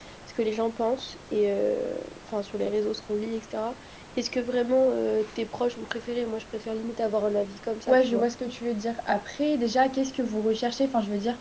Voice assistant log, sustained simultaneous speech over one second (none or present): none